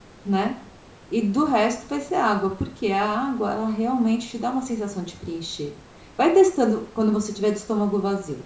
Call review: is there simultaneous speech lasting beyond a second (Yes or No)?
No